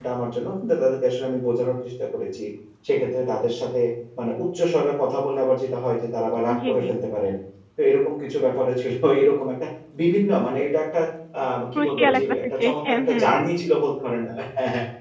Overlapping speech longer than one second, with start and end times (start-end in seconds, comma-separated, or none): 11.8-13.2